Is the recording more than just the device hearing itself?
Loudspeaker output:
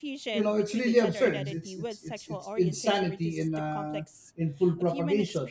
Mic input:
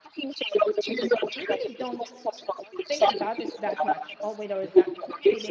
Yes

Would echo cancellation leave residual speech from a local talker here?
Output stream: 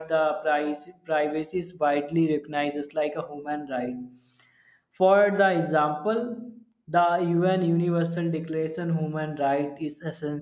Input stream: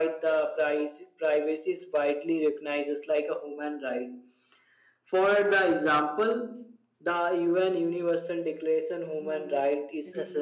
Yes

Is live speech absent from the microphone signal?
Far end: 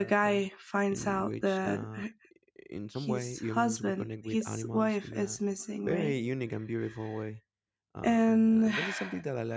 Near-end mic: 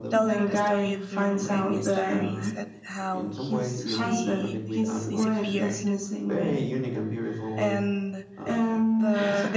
No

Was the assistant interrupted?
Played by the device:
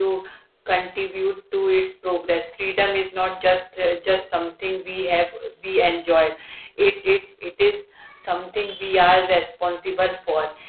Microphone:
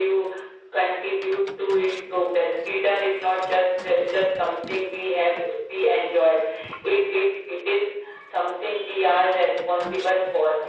No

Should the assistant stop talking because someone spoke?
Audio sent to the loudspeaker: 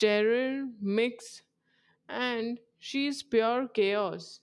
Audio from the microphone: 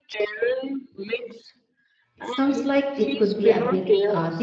Yes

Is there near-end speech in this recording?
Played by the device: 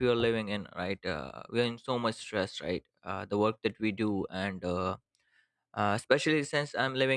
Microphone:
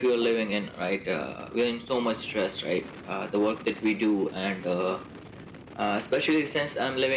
No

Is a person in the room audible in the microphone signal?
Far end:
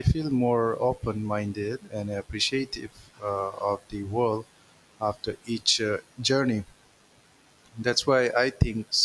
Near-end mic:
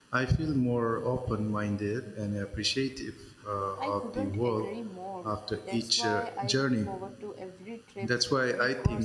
Yes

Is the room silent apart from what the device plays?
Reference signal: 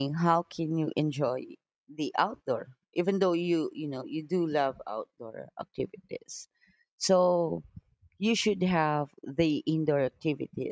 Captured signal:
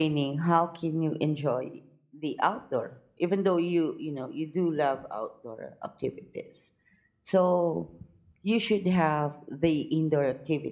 Yes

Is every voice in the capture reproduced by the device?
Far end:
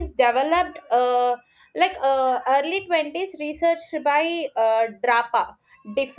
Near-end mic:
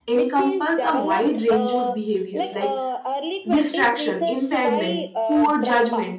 No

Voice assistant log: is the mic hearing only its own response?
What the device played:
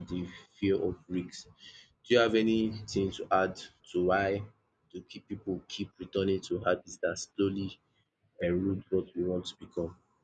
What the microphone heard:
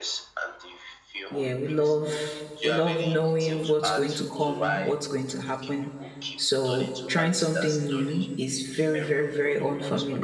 No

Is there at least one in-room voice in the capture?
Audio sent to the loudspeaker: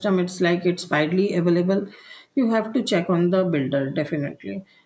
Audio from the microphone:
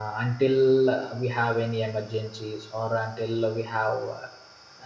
Yes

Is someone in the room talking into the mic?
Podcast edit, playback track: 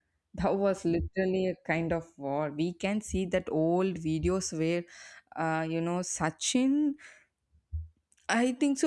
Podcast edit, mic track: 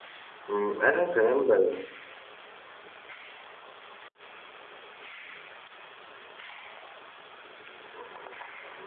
Yes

